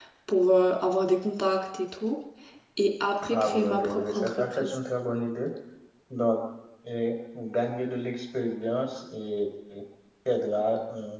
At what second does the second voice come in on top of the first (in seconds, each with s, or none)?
3.4 s